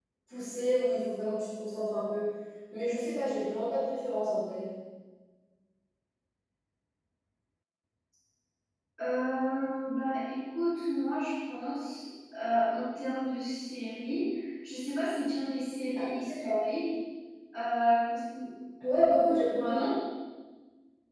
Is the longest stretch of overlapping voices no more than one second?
Yes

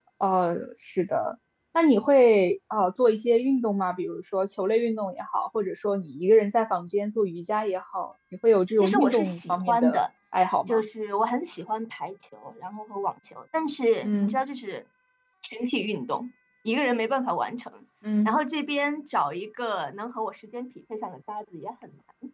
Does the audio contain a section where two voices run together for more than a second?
Yes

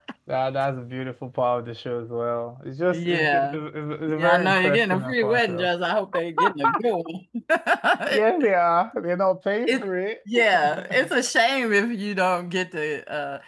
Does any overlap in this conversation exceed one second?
Yes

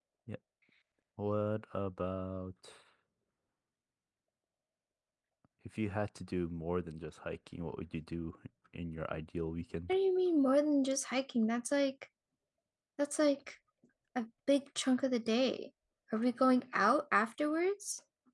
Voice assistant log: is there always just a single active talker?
Yes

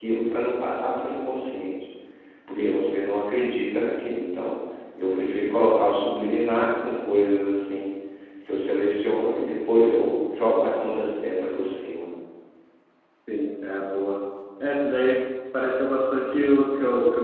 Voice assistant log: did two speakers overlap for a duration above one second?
No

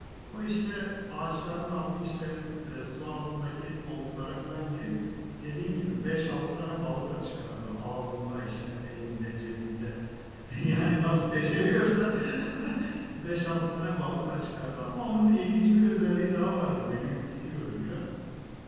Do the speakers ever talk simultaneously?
No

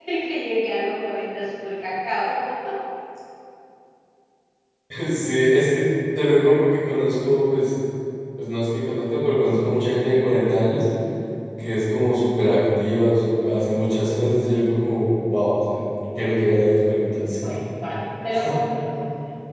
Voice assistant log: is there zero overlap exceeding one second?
Yes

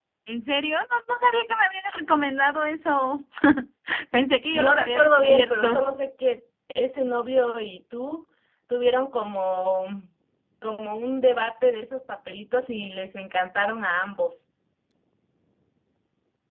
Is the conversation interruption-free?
No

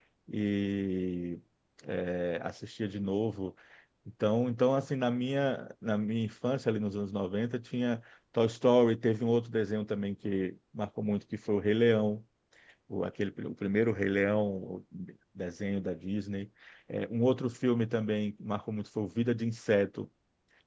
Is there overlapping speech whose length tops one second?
No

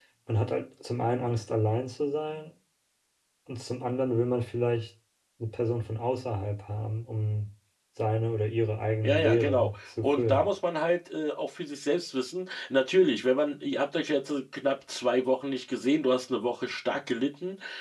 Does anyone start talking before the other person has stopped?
Yes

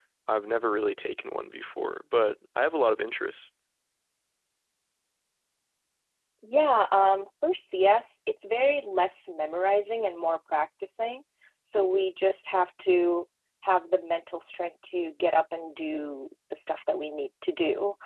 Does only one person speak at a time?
Yes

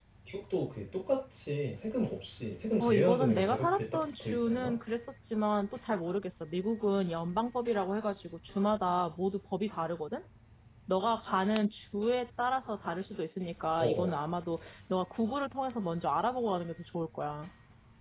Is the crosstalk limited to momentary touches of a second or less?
No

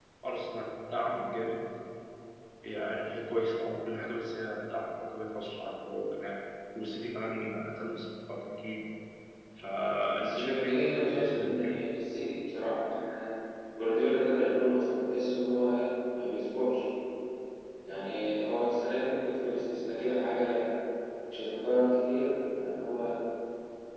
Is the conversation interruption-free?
No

